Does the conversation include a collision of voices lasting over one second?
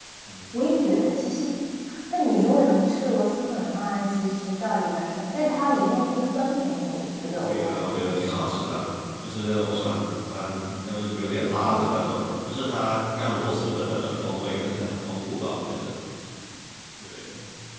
Yes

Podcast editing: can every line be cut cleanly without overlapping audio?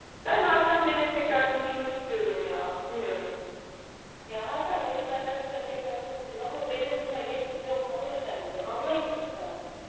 Yes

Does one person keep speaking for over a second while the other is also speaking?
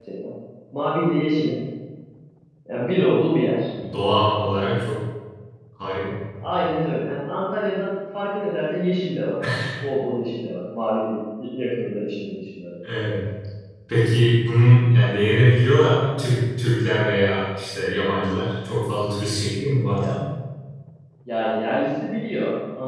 No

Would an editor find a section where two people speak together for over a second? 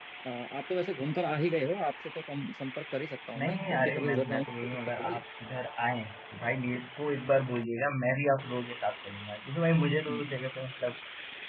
Yes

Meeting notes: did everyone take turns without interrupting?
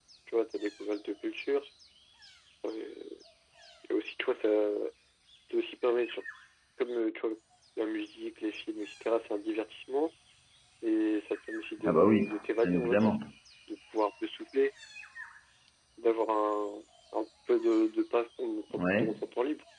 No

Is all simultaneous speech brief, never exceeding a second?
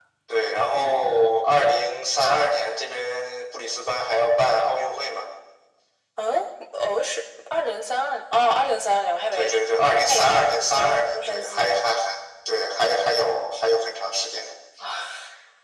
No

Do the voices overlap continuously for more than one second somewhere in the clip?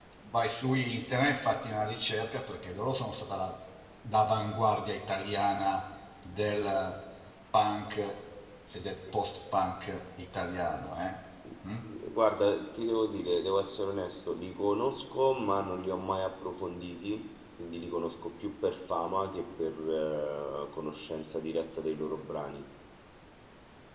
No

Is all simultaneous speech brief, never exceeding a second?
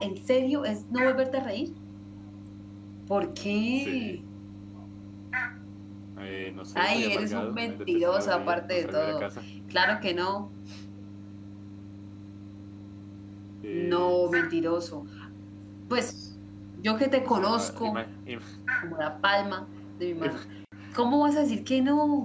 No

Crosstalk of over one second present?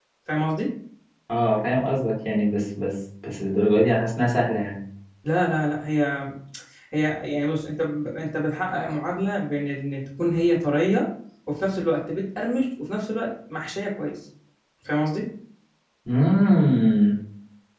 No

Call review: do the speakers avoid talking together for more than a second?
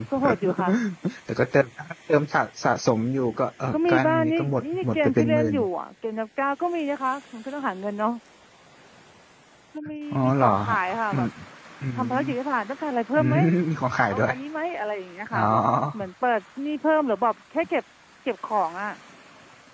No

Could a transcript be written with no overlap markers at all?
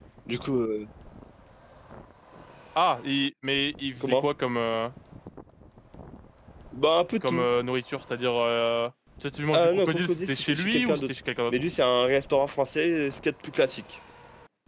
No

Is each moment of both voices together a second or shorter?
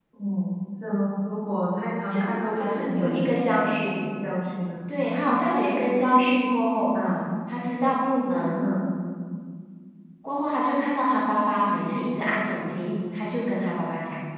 No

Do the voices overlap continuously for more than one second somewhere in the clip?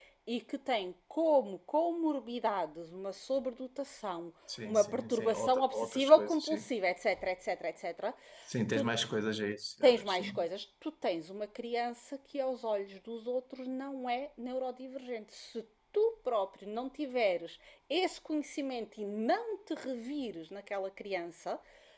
Yes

